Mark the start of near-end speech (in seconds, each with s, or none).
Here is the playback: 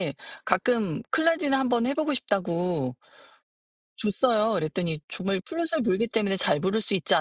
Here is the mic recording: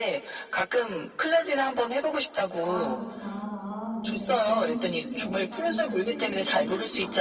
2.6 s